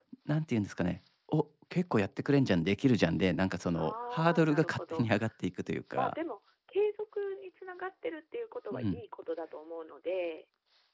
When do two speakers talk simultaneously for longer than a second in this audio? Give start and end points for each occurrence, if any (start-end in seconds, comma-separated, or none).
3.8-5.1